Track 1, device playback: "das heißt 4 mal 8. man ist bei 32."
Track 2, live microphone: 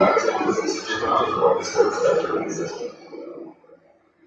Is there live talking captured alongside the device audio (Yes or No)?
Yes